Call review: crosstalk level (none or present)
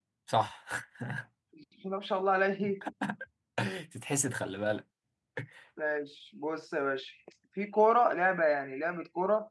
none